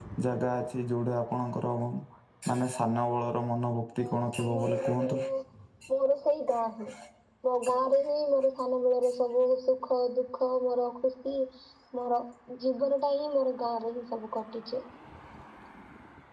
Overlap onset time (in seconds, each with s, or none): 4.0 s